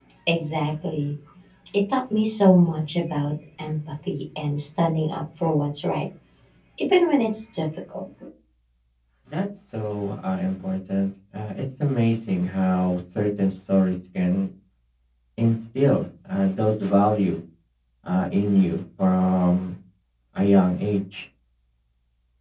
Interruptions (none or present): none